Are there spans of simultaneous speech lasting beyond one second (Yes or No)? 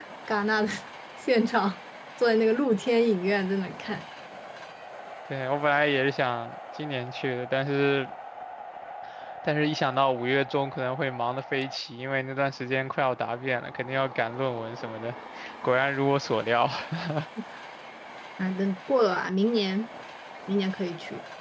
No